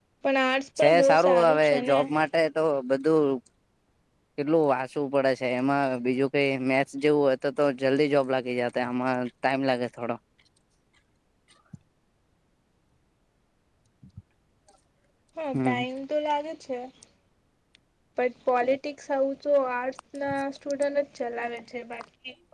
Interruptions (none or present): present